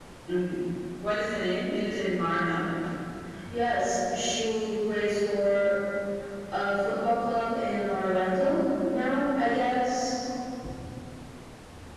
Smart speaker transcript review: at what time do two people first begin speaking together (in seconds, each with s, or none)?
none